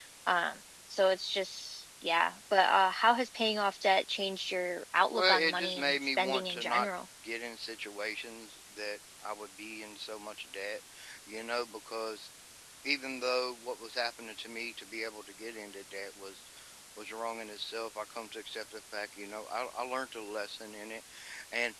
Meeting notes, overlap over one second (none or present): present